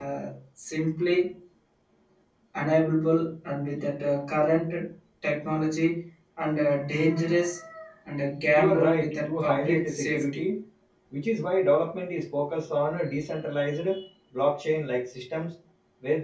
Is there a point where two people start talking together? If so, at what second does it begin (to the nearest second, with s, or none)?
9 s